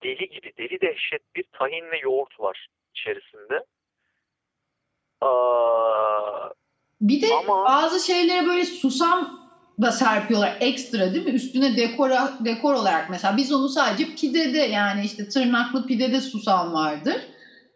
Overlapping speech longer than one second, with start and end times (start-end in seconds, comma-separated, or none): none